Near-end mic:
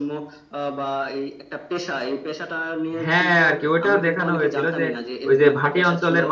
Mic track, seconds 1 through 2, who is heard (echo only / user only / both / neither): echo only